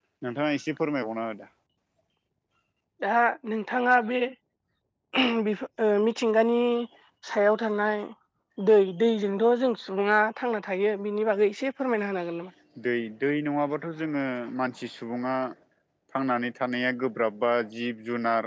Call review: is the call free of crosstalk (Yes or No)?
Yes